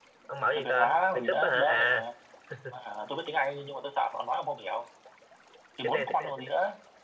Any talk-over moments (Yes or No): Yes